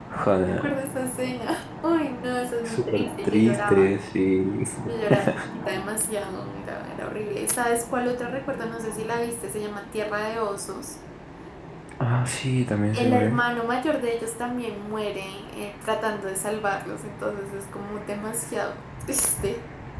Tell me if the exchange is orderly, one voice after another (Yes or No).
No